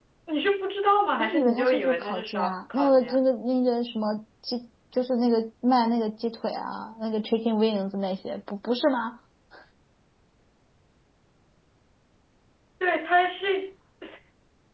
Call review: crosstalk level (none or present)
present